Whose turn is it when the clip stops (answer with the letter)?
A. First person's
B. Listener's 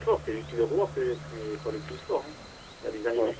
A